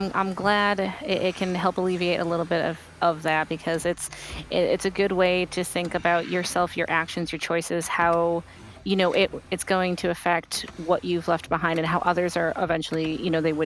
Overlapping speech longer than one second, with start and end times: none

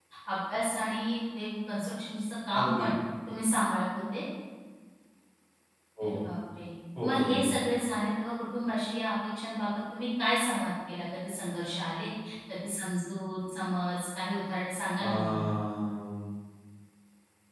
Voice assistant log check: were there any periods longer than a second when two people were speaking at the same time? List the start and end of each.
none

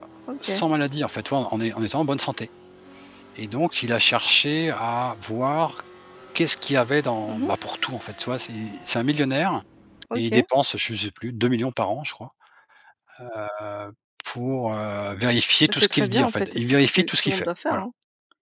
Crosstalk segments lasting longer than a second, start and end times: 15.7-17.8

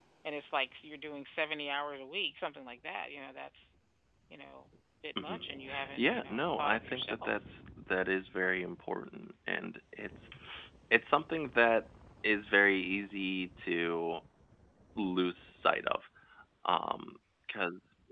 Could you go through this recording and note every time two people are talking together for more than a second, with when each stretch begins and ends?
6.0-7.3

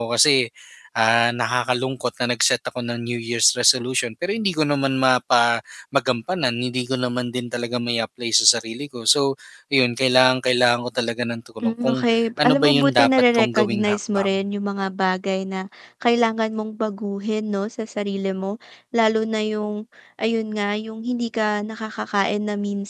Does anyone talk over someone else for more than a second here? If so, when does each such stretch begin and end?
12.4-14.3

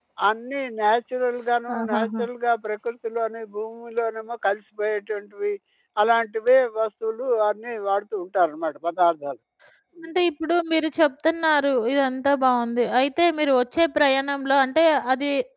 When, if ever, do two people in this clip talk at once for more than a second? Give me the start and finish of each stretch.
none

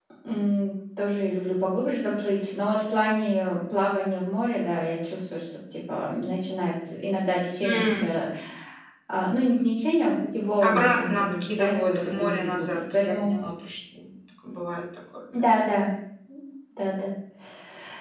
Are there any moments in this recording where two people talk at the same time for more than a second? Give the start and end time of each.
10.6-13.3

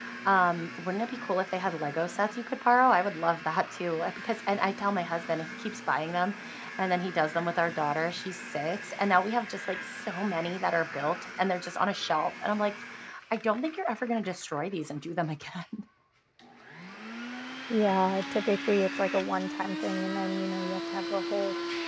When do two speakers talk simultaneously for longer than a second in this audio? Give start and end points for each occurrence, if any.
none

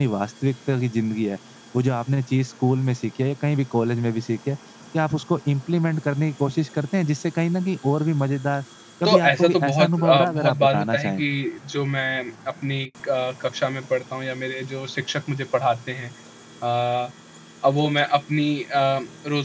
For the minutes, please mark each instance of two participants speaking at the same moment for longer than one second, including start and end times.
9.0-11.2

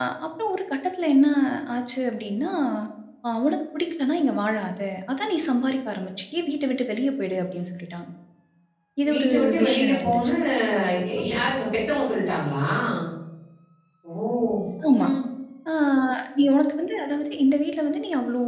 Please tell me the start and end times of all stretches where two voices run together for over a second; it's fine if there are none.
9.1-10.3

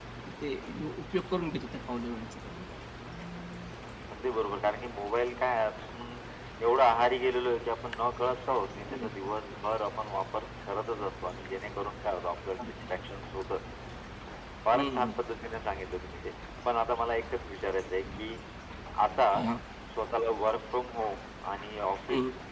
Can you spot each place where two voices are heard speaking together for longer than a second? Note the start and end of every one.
none

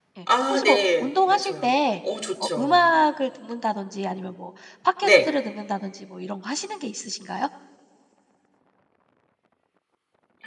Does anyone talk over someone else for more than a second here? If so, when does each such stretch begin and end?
0.5-1.7

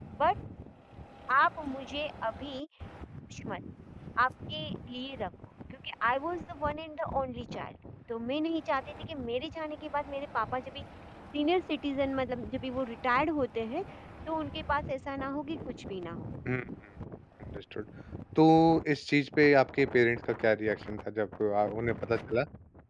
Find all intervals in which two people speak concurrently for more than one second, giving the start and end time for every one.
none

